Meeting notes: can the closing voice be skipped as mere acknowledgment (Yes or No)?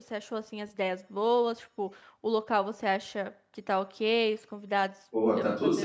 No